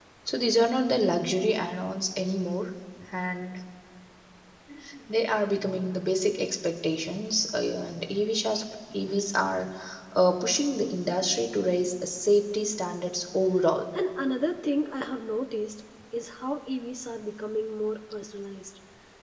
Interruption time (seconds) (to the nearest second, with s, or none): none